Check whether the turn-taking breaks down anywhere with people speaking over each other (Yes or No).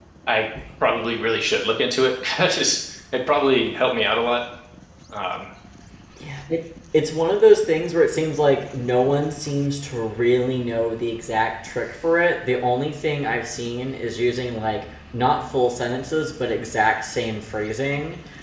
No